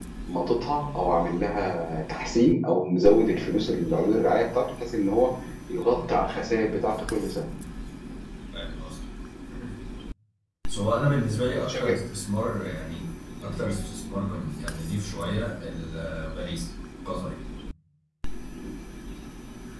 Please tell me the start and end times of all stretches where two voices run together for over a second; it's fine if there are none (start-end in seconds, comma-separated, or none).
none